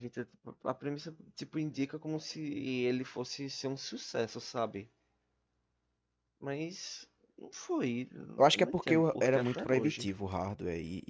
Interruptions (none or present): present